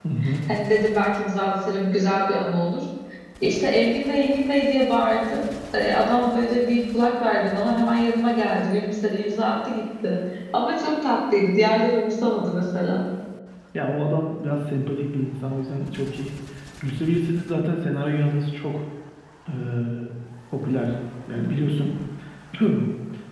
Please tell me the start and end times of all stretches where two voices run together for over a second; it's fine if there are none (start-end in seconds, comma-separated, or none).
none